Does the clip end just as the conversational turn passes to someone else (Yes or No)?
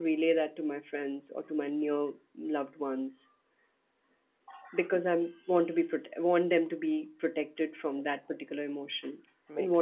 Yes